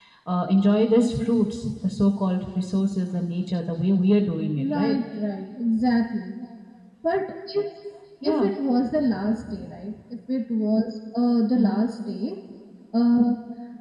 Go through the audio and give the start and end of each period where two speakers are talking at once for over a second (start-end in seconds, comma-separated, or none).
none